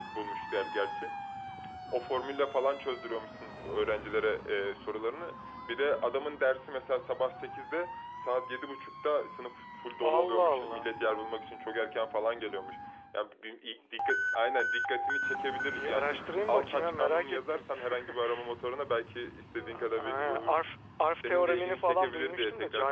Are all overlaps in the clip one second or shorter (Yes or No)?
No